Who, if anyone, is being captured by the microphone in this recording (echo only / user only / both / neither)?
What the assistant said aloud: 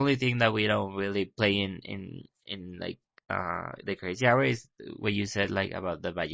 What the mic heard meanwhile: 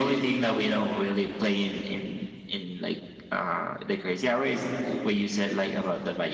echo only